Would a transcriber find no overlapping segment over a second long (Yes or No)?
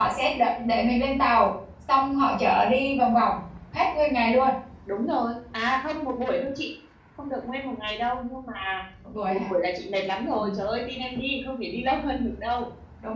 Yes